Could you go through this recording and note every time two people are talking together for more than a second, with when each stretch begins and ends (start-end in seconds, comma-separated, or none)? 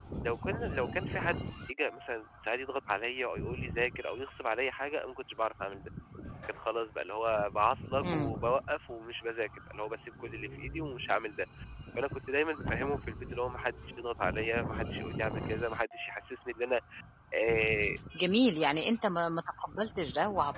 none